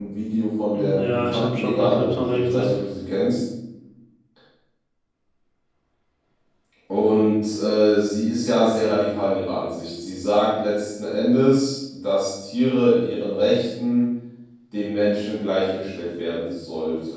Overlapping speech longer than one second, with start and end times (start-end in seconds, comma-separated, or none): 0.7-2.7